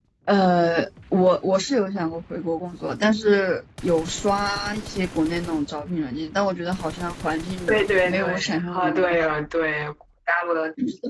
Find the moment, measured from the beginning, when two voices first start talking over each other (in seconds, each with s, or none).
7.7 s